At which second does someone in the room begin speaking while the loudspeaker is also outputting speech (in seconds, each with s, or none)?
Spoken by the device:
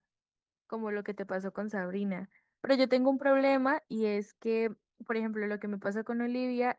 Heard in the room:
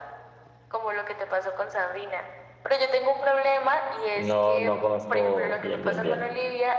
4.1 s